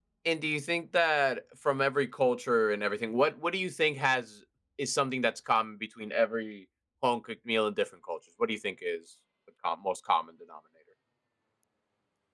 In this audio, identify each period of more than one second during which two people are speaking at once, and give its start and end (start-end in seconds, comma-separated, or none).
none